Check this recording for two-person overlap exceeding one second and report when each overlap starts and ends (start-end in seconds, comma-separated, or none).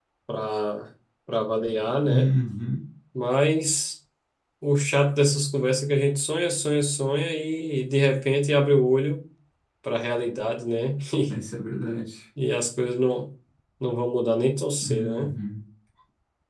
none